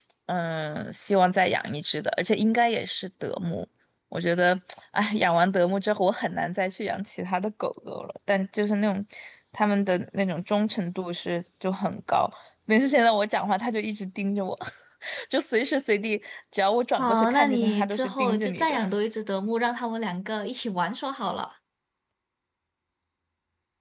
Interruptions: present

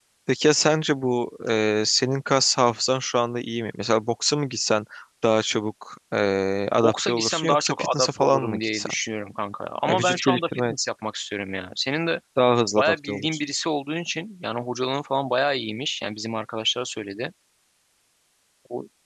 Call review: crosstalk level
present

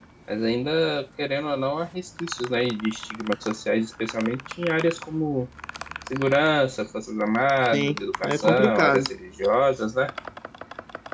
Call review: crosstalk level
present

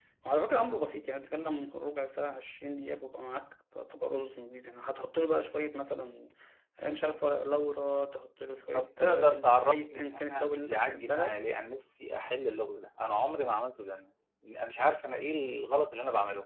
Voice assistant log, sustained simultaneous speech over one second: present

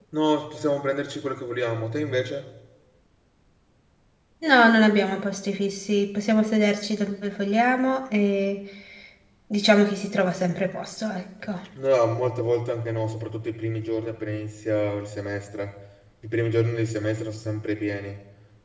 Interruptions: none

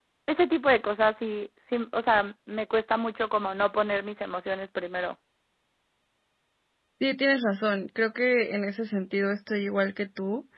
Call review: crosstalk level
none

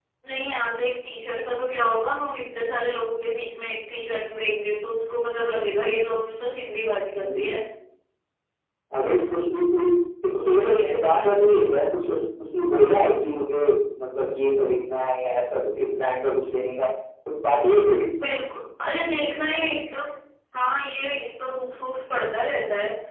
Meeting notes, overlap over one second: present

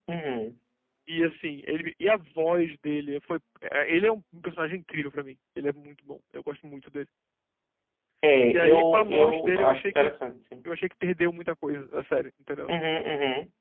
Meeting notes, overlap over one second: present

